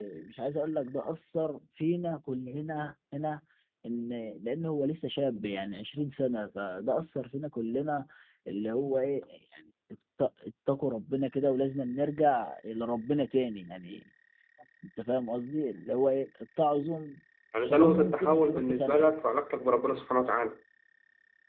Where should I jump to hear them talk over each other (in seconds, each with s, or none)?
17.6 s